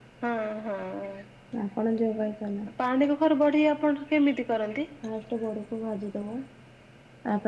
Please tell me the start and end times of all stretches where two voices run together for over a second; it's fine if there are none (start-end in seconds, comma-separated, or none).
none